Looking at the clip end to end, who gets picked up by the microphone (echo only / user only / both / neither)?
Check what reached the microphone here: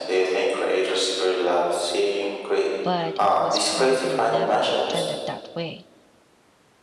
both